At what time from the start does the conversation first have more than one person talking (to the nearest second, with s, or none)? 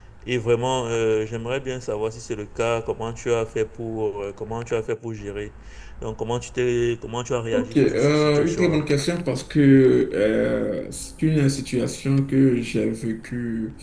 8 s